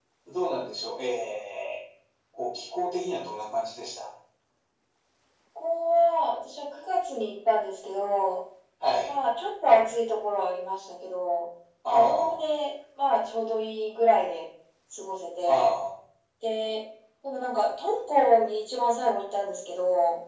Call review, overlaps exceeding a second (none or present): none